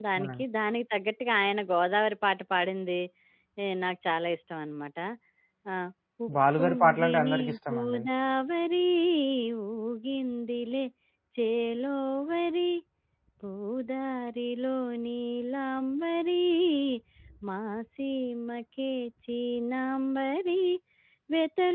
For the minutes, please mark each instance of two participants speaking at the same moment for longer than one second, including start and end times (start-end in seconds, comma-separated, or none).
6.6-8.0